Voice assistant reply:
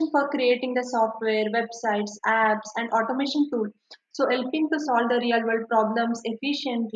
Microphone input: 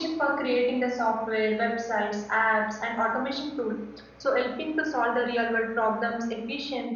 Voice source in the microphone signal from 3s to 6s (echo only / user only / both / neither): echo only